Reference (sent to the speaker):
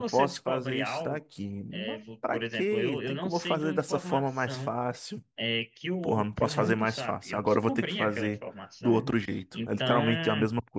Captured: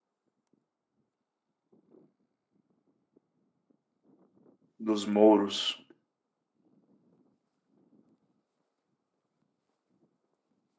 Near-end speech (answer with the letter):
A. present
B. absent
A